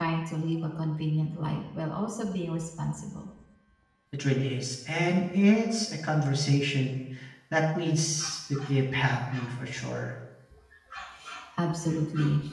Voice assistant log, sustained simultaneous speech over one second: none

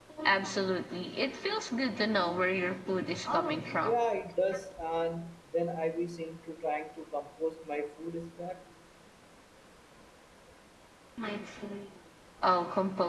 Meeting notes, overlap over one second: none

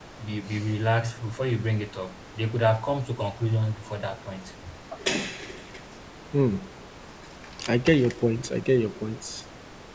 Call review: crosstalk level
none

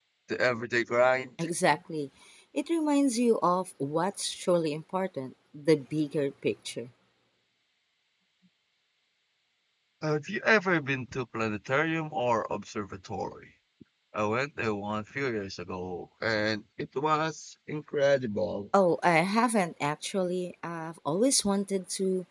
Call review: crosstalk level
none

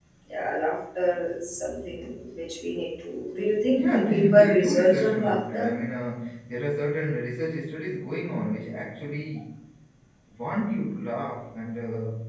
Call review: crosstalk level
present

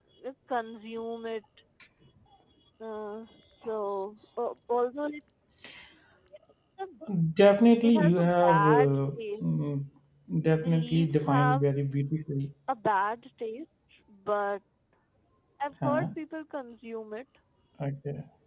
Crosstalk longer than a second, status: present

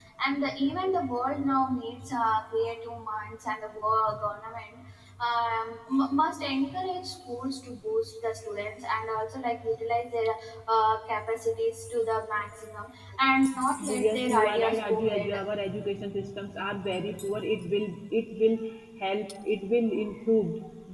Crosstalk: present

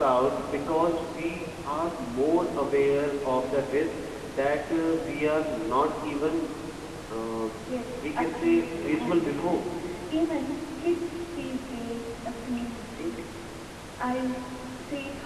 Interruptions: present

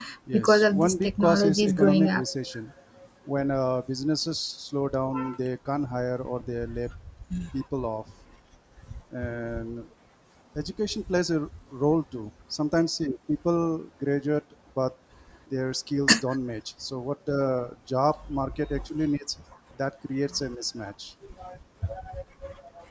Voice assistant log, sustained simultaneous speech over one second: present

